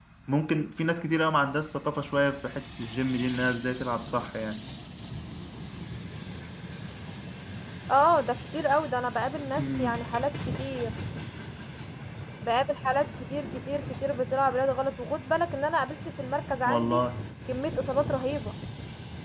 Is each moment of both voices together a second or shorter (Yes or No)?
Yes